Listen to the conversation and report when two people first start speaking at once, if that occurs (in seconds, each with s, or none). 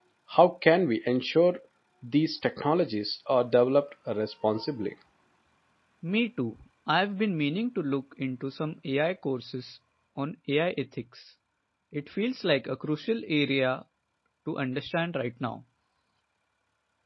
none